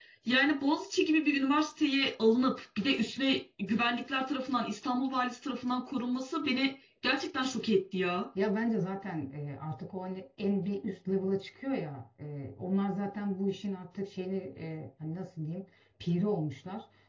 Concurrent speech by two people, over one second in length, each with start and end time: none

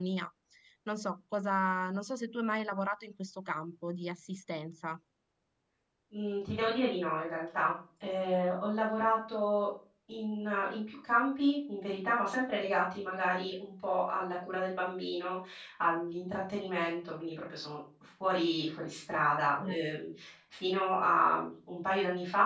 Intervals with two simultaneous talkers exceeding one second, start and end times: none

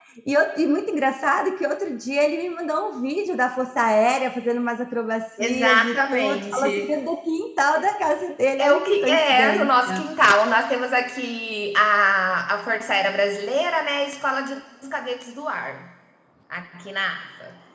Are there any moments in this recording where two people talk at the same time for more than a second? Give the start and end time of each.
5.4-6.9, 8.6-10.0

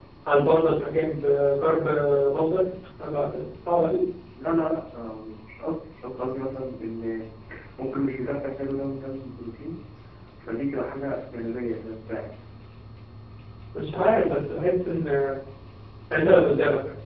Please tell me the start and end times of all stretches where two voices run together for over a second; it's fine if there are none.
none

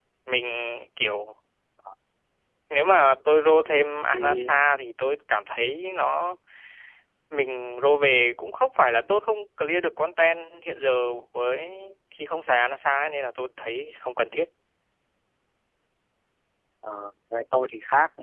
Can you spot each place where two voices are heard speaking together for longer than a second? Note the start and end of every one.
none

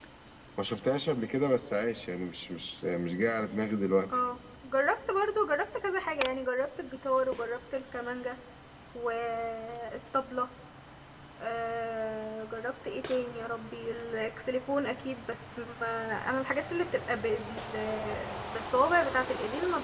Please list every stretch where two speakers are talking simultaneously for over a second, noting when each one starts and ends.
none

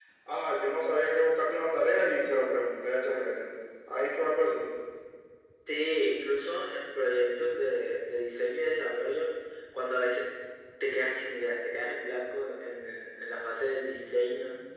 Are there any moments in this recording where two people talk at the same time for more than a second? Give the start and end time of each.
none

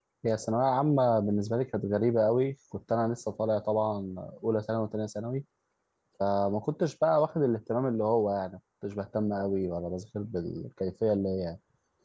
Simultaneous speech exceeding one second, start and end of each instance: none

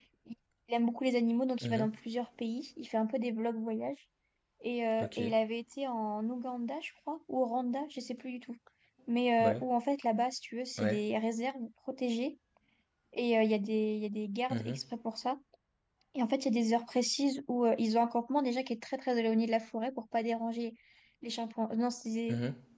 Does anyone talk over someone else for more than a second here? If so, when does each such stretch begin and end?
none

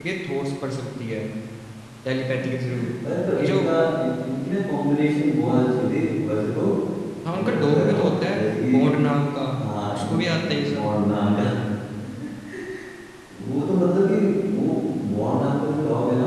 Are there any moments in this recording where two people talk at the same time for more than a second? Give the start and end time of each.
7.3-8.8

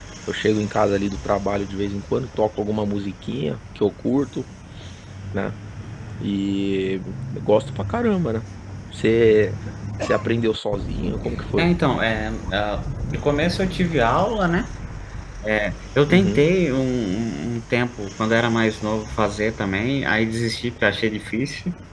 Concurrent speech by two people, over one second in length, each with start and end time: none

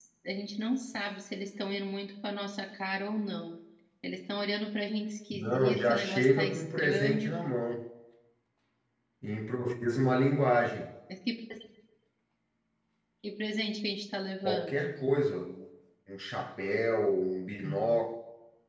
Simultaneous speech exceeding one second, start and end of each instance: 5.3-7.3

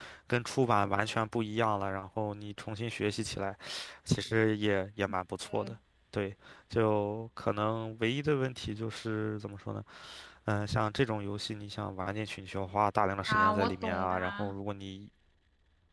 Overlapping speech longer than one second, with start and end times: 13.3-14.5

